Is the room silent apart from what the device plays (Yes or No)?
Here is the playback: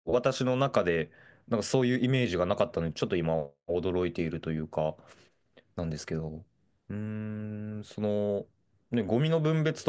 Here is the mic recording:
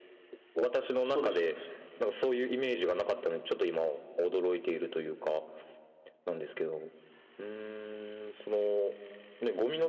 No